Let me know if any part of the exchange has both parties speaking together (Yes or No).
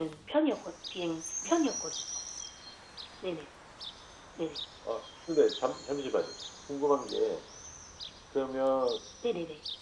No